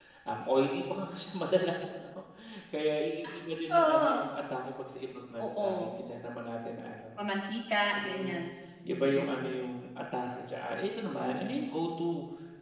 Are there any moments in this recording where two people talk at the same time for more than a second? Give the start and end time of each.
none

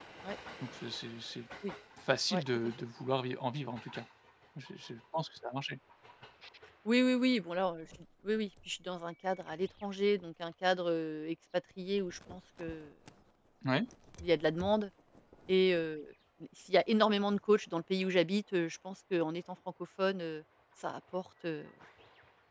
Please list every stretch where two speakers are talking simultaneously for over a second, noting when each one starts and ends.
none

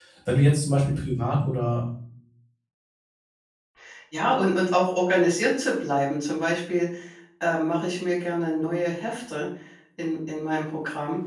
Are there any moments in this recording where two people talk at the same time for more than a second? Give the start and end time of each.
none

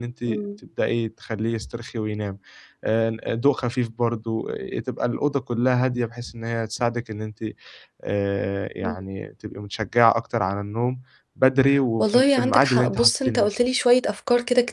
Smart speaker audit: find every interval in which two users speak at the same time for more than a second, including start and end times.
12.0-13.7

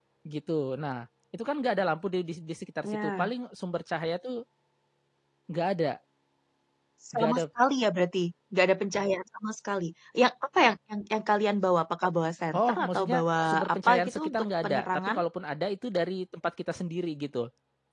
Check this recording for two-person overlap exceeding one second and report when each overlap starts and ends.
12.5-15.2

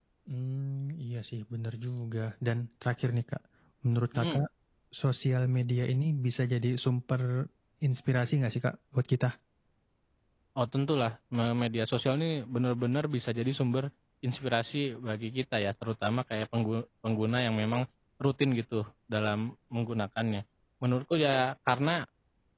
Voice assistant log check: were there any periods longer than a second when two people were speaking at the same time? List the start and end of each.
none

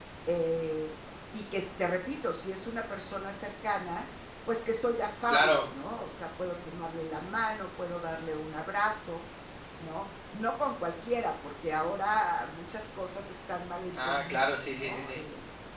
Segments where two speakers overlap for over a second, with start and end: 13.9-15.2

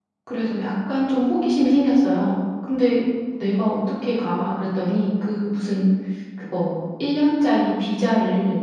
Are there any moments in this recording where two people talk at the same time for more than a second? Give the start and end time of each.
none

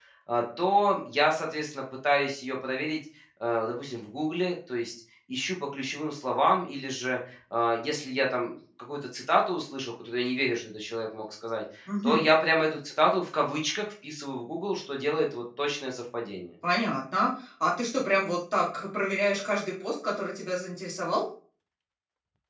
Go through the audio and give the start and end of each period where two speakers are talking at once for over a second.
none

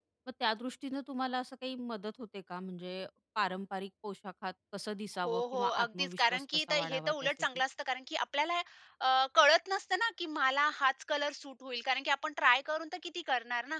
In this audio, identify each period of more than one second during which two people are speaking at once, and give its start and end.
5.2-7.3

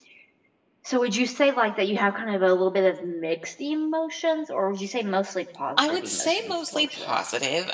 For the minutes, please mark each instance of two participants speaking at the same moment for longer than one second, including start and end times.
5.8-7.2

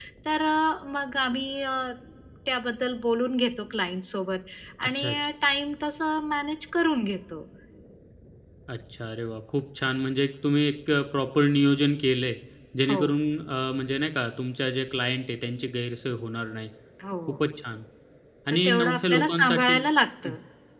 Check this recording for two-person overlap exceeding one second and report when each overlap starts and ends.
18.5-19.8

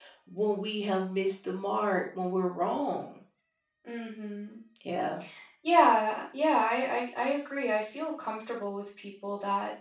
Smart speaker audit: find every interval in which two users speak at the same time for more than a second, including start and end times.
none

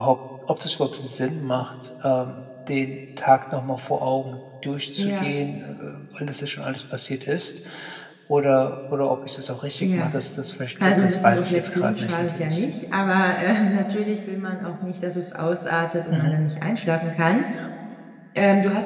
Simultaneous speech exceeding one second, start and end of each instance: 10.8-12.6

